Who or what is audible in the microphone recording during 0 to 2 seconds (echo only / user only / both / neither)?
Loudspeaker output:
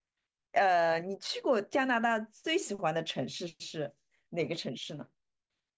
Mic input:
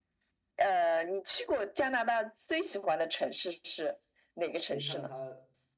echo only